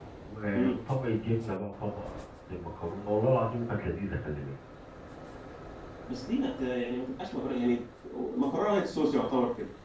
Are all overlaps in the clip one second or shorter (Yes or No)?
Yes